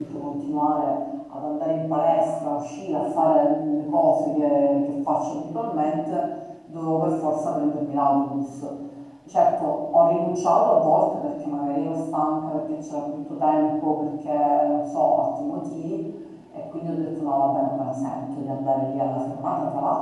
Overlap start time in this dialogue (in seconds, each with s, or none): none